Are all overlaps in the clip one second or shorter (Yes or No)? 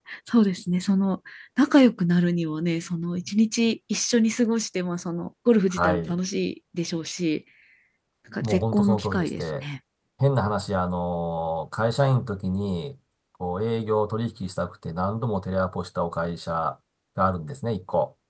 No